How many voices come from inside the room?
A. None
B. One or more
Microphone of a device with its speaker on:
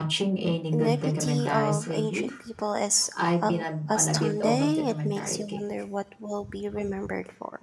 B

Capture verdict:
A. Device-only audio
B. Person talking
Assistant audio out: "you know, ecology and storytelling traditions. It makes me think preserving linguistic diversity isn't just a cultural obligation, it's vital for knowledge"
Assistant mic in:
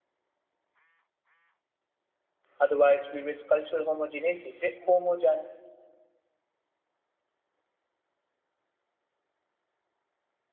B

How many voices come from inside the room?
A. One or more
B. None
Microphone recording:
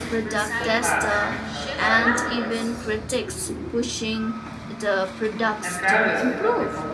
A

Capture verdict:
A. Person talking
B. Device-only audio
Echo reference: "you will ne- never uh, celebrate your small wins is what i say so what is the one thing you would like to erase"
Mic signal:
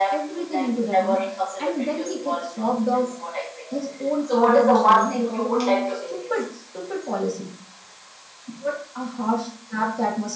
A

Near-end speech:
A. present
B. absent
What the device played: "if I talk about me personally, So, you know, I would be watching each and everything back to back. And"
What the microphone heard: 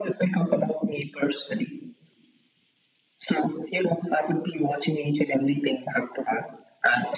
B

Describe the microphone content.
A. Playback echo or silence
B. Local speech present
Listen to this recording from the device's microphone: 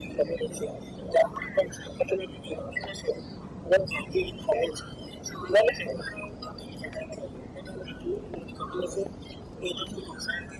A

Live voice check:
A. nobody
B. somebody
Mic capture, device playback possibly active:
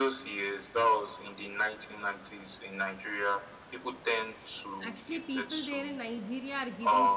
B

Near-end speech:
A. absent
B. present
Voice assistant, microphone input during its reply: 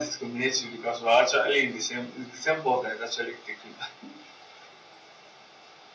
A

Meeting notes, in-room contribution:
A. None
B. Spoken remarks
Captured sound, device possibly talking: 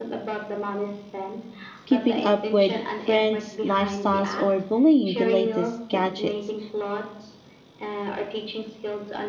B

